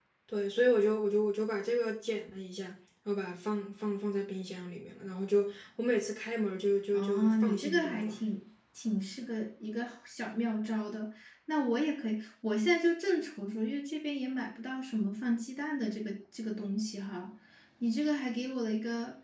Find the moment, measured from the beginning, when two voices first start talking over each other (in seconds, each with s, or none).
6.9 s